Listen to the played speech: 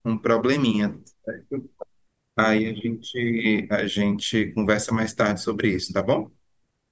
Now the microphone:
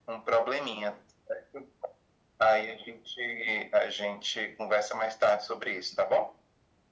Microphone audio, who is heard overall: echo only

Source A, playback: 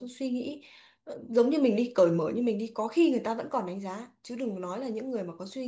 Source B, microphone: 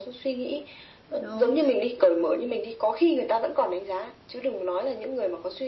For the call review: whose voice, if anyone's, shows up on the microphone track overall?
both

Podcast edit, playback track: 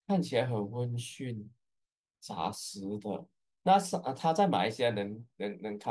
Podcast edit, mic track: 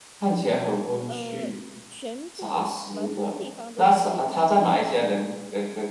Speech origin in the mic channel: both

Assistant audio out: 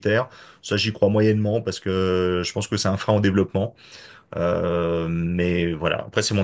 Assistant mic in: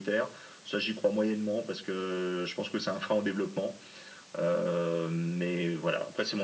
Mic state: echo only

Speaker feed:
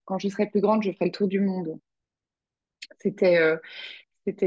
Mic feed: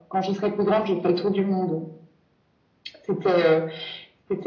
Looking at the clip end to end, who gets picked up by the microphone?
echo only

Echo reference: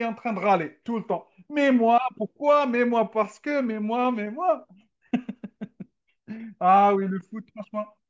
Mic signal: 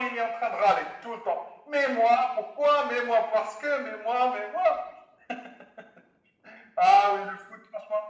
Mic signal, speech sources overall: echo only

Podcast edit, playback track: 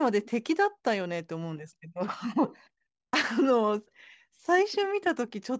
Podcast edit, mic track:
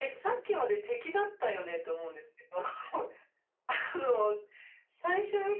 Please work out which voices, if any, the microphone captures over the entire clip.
echo only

